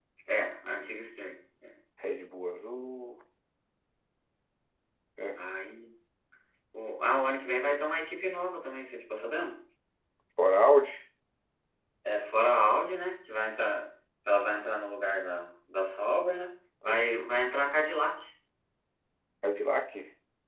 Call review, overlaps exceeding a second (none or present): none